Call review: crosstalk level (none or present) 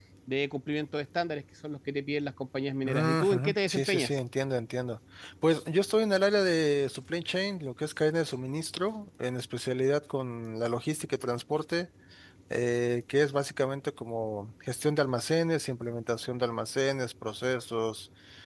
present